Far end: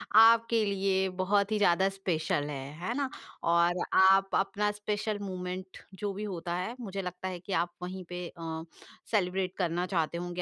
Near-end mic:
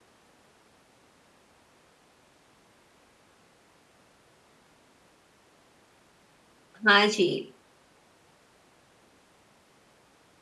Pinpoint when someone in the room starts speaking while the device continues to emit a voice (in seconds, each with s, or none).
6.9 s